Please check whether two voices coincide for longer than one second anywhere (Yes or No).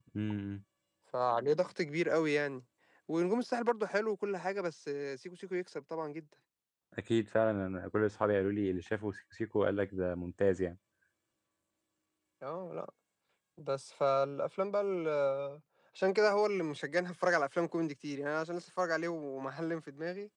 No